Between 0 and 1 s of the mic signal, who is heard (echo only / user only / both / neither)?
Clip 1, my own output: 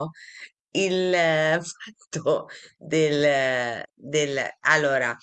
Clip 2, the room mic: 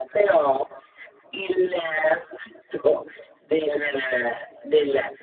echo only